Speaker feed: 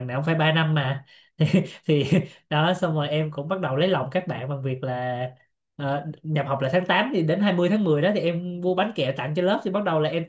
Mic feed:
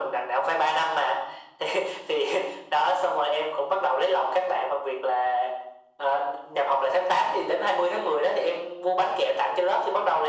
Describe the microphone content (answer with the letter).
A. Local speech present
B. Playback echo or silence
B